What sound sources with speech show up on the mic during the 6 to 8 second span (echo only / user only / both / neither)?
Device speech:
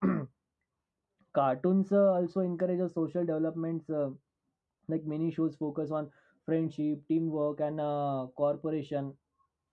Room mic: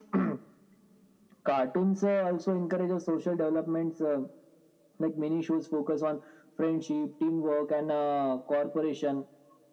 echo only